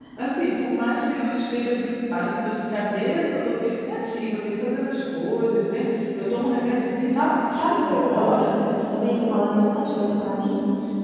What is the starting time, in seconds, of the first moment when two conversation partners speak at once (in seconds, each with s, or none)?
7.2 s